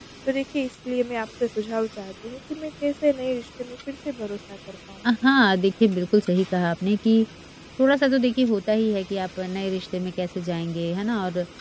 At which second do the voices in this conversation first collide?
none

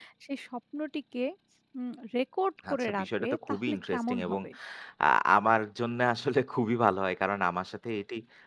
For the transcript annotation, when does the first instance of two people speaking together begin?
2.6 s

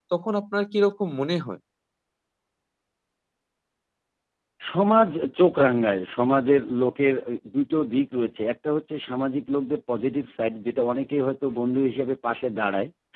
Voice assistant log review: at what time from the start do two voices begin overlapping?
none

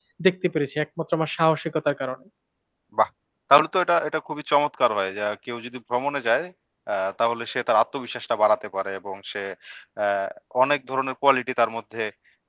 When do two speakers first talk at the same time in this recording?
none

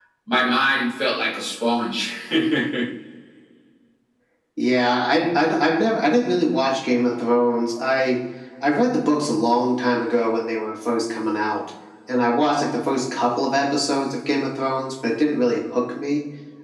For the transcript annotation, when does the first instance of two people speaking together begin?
none

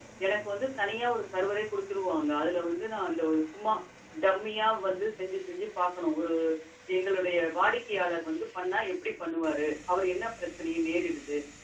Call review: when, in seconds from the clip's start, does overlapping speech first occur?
none

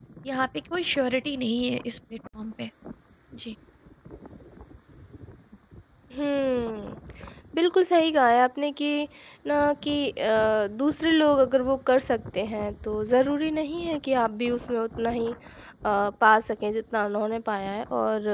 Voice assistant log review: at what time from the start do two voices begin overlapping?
none

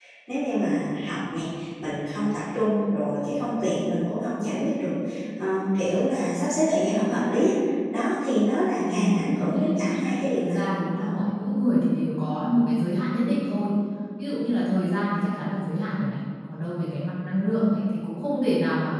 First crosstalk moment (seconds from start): 8.8 s

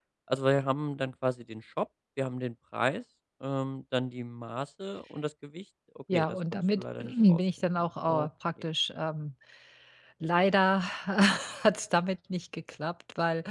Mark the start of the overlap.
6.1 s

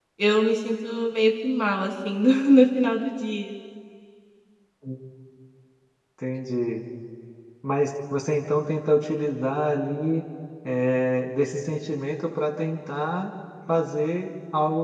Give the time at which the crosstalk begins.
none

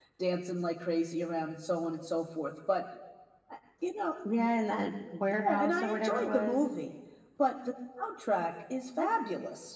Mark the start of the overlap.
5.3 s

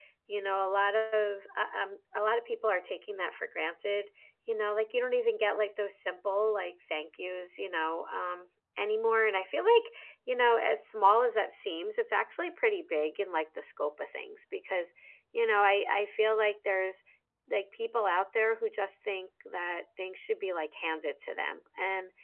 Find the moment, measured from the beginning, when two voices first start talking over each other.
none

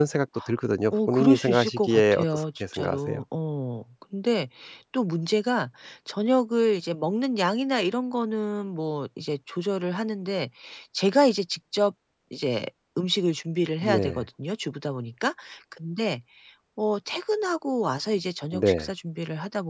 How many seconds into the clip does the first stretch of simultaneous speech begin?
0.9 s

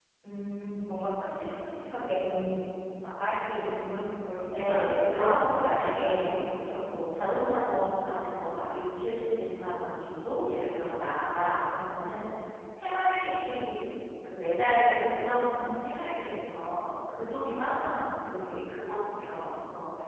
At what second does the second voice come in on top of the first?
4.5 s

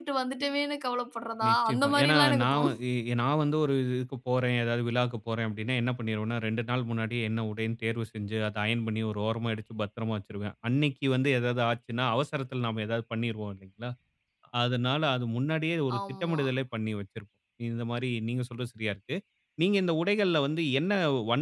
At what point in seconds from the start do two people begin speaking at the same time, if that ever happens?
1.5 s

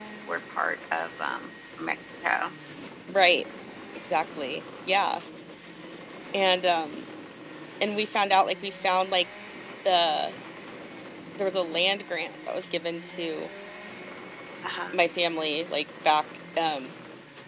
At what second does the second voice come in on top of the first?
none

